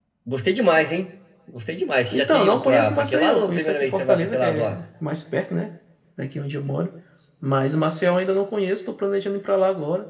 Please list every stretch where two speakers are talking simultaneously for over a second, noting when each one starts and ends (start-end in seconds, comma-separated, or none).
2.1-4.8